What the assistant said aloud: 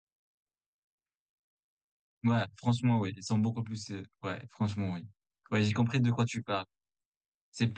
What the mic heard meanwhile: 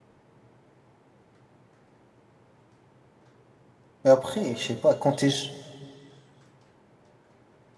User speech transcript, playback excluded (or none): Mais après, je sais pas, quand t'es je-